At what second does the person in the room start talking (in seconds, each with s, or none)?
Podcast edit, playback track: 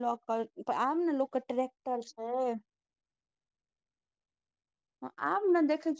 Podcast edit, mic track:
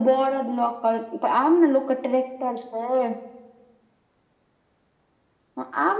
none